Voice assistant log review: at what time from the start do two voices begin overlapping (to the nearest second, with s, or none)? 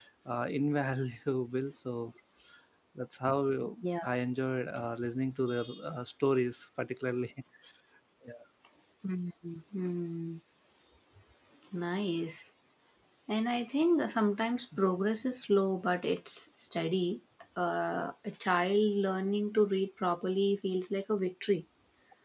none